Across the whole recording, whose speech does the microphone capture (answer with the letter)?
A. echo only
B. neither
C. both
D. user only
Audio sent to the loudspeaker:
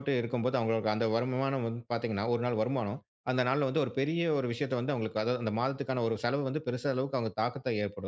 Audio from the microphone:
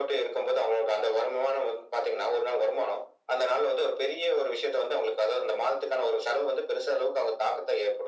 A